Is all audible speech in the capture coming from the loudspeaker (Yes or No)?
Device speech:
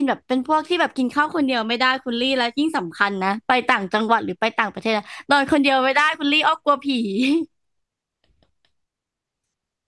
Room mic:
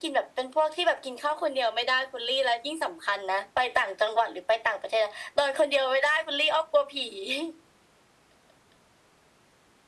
Yes